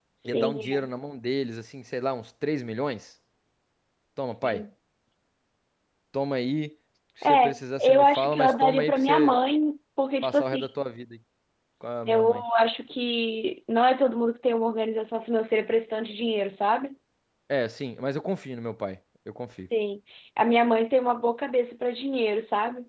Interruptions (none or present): present